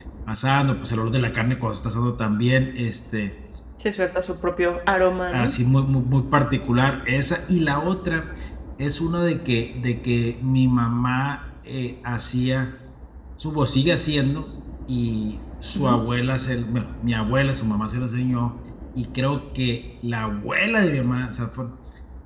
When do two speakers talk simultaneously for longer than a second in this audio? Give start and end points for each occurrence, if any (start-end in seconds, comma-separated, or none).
none